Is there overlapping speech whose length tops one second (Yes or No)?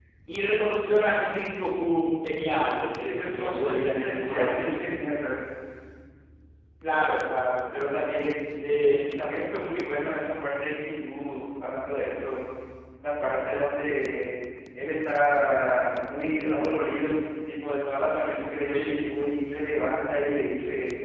Yes